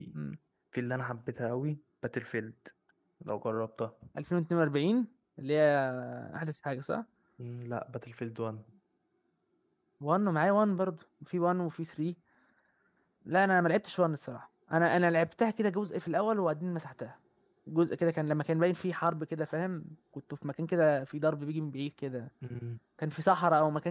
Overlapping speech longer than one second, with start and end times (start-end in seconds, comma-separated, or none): none